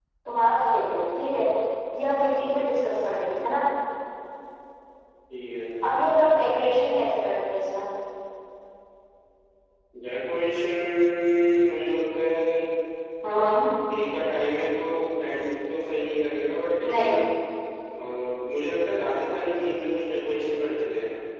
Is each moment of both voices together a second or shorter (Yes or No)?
Yes